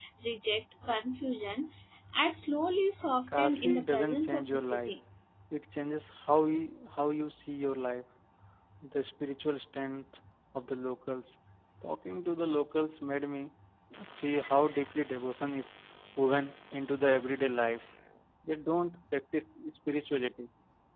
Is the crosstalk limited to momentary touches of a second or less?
No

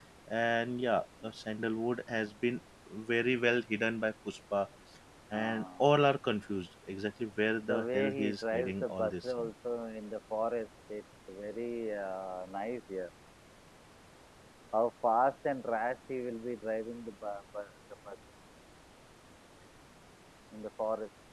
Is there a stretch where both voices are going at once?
Yes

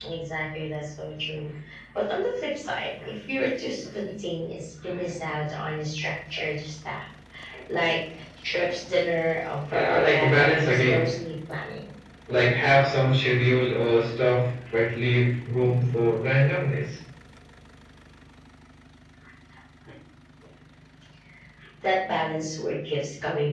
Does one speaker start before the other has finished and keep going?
Yes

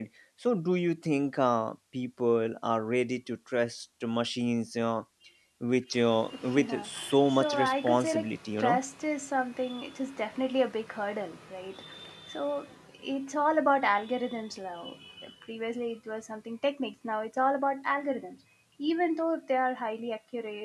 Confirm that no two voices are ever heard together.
No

